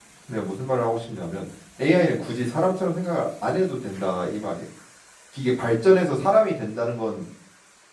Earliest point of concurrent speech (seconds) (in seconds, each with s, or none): none